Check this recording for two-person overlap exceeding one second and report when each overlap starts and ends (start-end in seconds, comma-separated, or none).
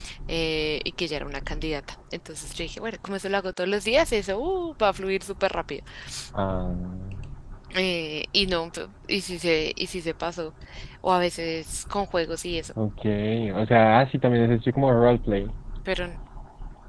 none